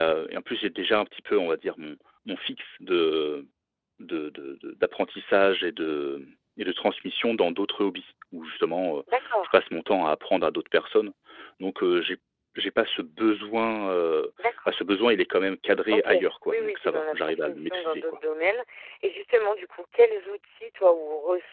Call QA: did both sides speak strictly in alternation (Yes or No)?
No